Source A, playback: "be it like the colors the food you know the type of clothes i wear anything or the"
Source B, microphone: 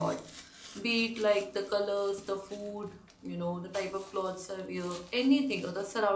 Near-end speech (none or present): none